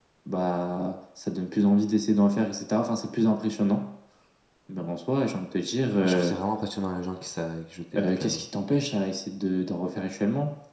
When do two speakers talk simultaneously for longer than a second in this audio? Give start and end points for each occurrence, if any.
none

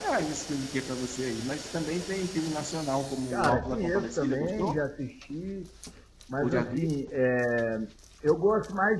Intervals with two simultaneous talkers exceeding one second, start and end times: 3.3-4.8

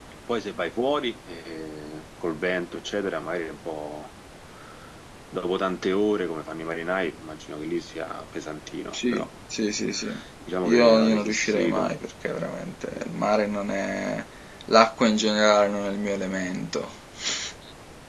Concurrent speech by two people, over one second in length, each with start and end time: 10.6-11.9

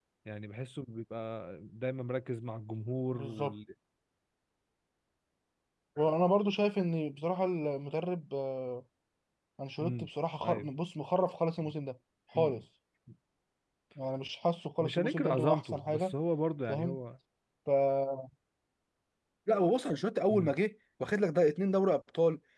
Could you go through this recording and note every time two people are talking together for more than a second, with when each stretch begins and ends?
14.8-16.1

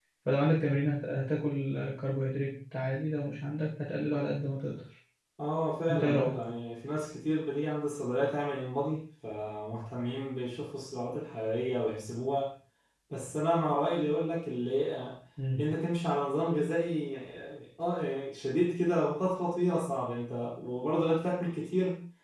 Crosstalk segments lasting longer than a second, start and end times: none

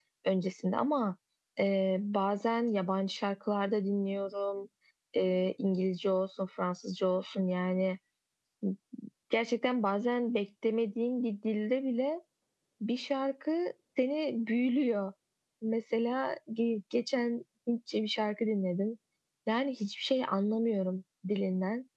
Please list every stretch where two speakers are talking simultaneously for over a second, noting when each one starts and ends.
none

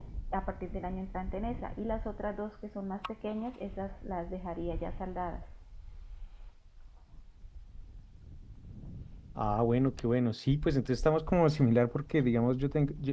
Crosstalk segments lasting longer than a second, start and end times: none

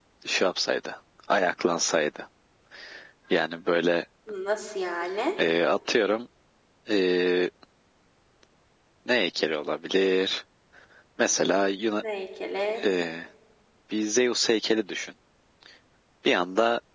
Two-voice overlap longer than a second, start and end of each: none

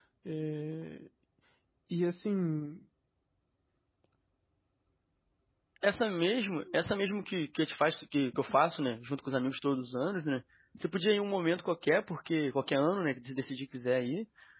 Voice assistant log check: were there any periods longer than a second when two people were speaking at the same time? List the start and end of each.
none

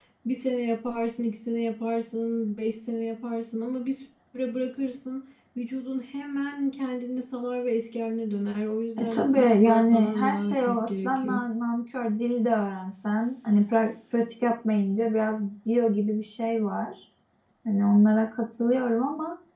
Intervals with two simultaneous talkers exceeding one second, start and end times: 9.0-11.4

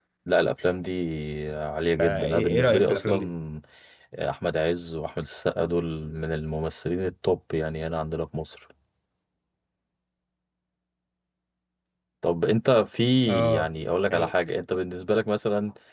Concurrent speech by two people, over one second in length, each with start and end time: 2.0-3.2

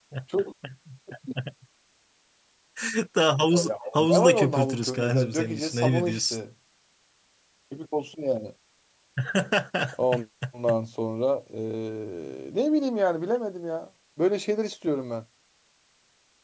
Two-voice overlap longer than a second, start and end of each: 3.7-6.4

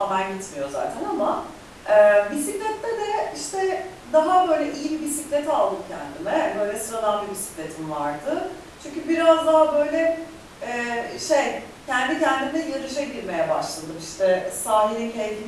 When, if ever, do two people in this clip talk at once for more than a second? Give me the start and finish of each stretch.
none

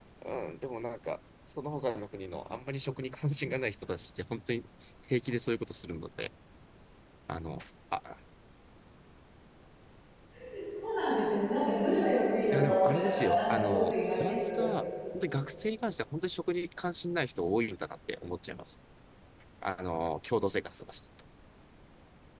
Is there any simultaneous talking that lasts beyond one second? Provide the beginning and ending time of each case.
12.5-14.7

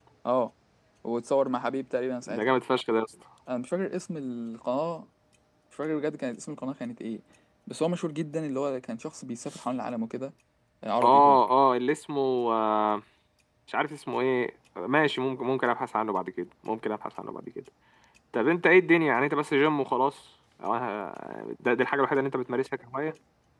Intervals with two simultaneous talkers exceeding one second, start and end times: none

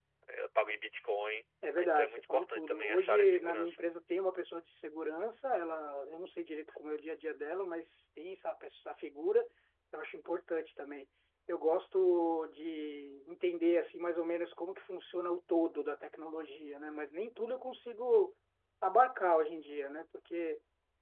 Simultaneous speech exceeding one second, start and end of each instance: 1.8-3.8

